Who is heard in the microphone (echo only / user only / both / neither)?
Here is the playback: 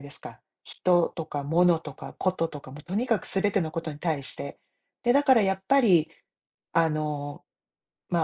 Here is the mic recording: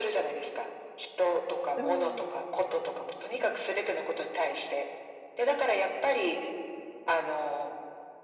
both